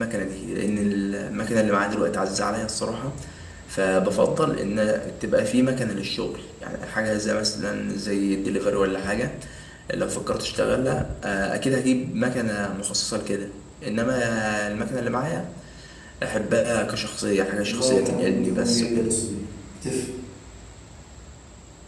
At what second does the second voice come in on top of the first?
17.6 s

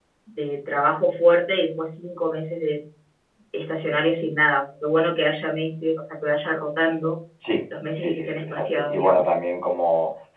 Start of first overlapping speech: 8.0 s

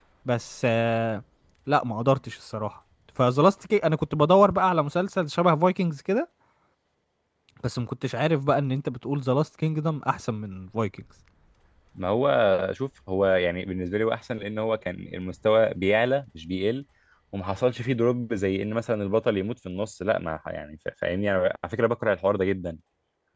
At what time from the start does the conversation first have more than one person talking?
none

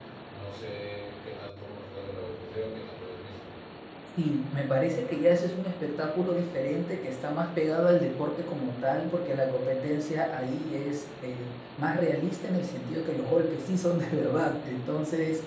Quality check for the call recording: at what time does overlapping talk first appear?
none

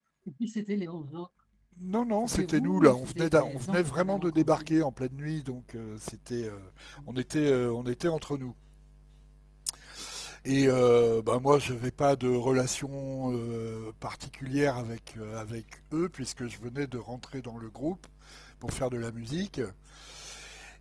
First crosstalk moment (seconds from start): 2.2 s

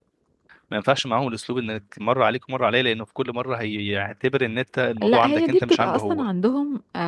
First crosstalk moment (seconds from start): 5.0 s

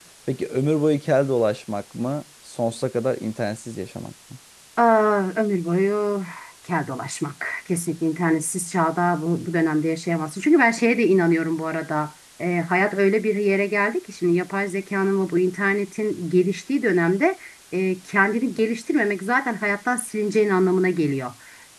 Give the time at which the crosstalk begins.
none

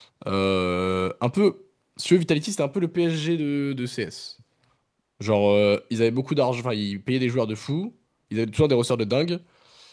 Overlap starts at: none

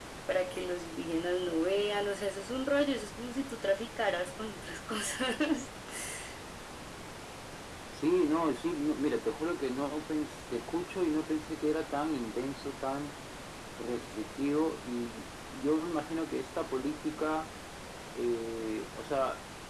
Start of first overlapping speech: none

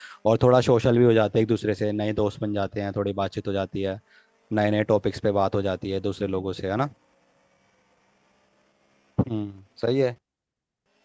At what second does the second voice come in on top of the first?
none

